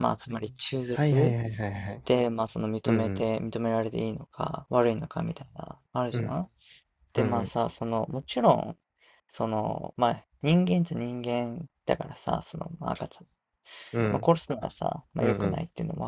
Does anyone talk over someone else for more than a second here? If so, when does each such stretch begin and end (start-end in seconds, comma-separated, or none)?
none